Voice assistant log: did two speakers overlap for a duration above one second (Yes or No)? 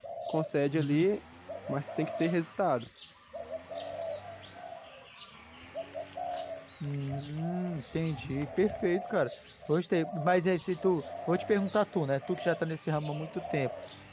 No